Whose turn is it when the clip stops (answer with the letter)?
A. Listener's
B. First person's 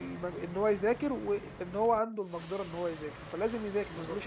A